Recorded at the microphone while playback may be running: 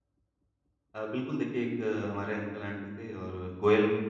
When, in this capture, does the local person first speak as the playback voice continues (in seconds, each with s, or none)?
1.0 s